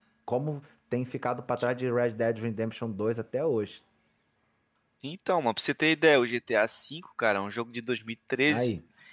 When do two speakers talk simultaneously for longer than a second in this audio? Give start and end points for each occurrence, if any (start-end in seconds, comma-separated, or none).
none